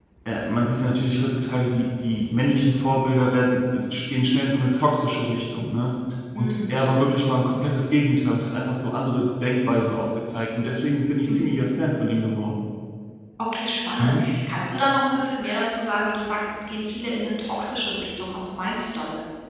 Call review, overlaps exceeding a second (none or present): none